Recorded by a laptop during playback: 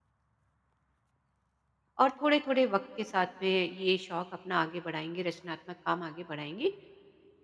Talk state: user only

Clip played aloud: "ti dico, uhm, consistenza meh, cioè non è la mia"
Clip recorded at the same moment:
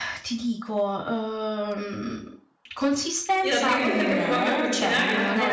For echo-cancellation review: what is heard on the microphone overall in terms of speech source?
both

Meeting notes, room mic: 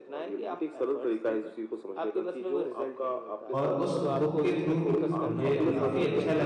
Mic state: both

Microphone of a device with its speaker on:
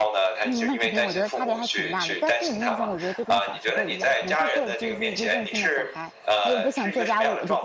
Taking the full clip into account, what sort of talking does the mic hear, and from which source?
both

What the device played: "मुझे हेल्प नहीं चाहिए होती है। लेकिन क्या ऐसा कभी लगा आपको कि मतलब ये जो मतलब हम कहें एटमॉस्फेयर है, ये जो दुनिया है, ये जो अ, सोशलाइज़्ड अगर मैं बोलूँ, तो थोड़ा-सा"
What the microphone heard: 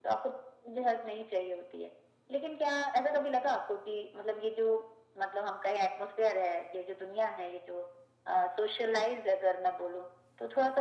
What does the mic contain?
echo only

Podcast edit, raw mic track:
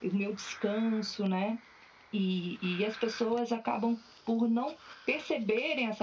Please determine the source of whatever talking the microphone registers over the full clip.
echo only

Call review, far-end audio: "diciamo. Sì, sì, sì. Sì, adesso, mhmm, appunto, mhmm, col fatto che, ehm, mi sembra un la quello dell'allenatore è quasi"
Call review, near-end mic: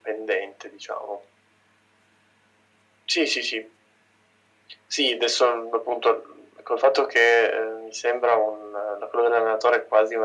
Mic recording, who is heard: echo only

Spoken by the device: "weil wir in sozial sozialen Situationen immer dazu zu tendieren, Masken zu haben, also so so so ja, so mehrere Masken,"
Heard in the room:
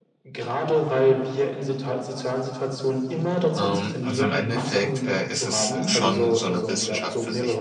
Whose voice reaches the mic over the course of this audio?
both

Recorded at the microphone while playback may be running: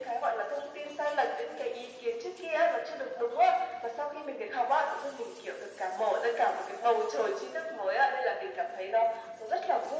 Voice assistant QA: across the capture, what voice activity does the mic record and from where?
echo only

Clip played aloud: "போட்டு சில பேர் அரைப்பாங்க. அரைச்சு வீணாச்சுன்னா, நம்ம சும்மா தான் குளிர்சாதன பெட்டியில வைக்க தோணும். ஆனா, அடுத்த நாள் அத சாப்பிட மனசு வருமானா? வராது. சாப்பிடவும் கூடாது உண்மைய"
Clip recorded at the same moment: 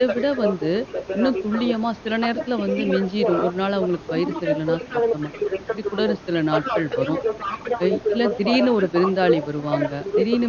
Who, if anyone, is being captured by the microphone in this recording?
both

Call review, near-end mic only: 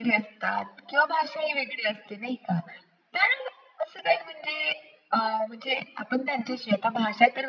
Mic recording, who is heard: echo only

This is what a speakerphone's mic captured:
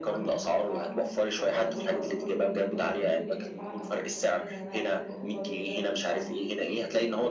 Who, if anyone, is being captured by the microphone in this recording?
both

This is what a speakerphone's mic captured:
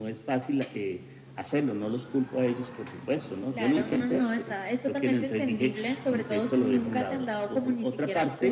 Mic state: echo only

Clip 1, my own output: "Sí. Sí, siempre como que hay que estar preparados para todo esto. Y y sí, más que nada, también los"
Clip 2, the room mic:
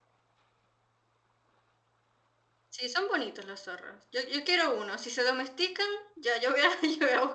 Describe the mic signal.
user only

